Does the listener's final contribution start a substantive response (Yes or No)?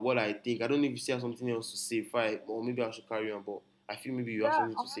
Yes